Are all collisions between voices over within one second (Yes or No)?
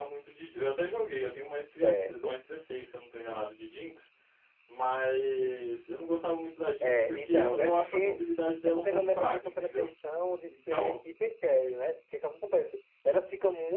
No